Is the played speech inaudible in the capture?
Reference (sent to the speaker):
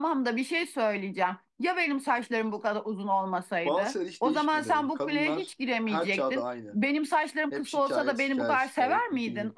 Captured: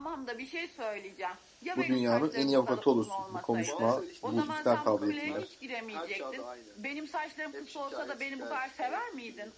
No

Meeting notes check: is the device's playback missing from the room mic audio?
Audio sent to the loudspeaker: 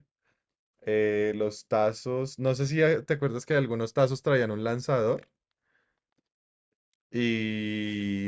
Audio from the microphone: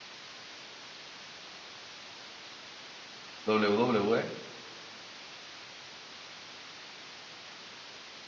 Yes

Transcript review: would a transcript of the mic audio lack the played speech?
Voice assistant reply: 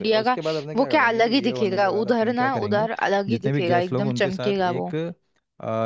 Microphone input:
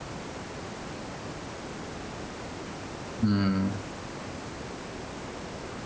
Yes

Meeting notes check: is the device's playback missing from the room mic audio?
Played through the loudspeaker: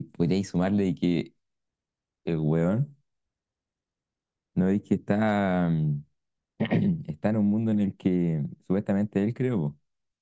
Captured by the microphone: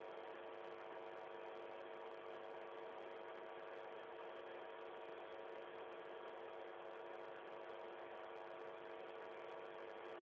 Yes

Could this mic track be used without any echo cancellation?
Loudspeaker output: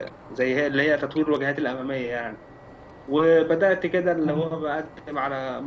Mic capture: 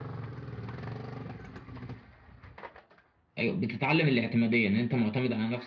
Yes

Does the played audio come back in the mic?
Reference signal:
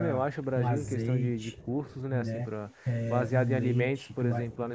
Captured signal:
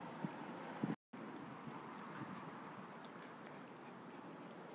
No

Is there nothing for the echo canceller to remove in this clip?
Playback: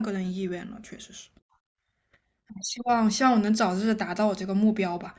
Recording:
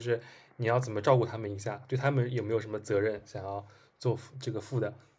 Yes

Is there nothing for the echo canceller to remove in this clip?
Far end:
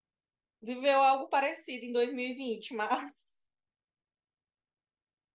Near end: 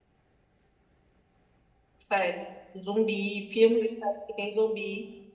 Yes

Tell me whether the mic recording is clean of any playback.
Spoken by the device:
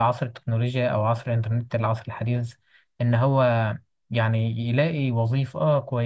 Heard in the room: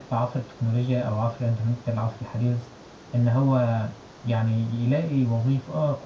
No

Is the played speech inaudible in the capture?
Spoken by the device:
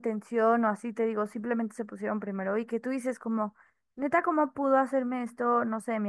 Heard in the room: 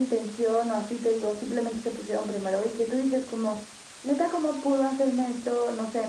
No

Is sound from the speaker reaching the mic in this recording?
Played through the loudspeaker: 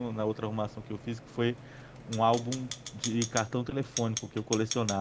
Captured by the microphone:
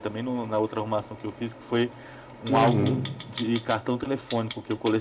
Yes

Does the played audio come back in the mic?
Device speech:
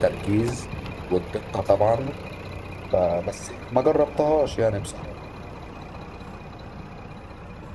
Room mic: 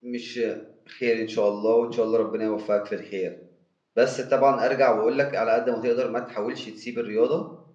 No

